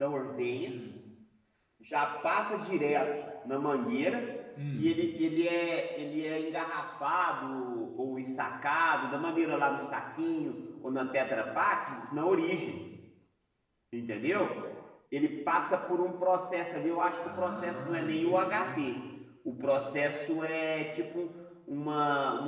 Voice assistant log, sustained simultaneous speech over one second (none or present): present